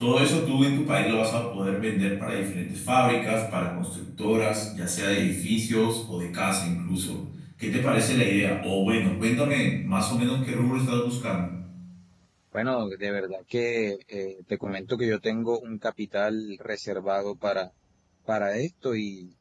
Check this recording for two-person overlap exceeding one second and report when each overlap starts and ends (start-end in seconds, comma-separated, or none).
none